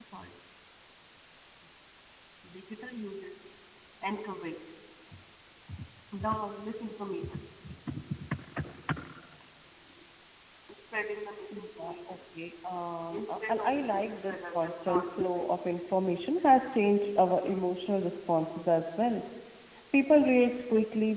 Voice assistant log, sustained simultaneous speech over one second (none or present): present